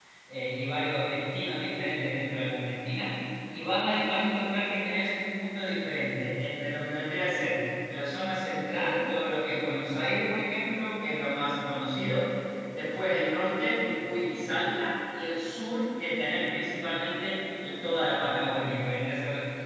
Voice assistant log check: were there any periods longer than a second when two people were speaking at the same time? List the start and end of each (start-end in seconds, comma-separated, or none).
none